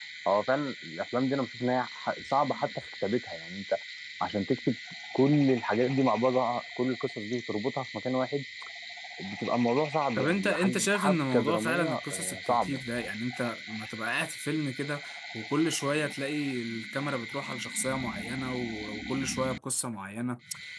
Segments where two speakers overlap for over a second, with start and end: 10.2-12.8

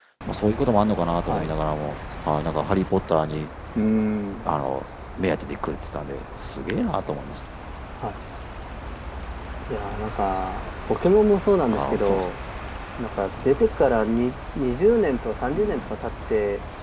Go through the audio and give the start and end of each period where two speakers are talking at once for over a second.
none

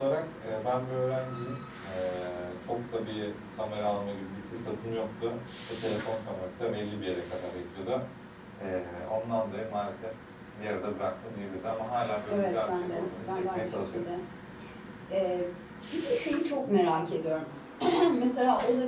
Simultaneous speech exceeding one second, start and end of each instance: 12.3-14.0

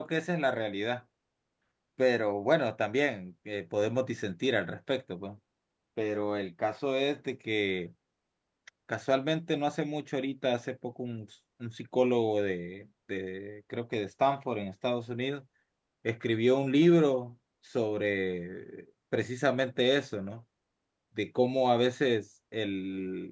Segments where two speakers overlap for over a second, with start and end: none

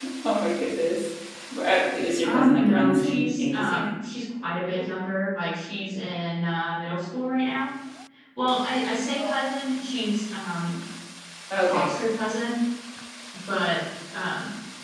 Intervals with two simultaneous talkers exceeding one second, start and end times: 2.2-3.9

